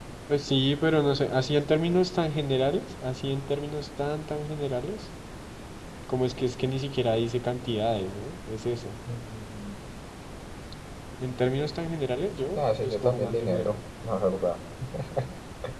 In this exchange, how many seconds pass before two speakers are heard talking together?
12.6 s

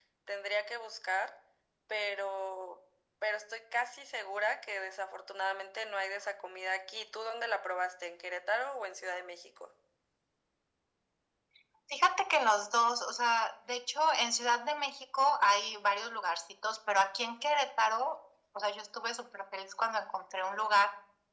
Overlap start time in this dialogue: none

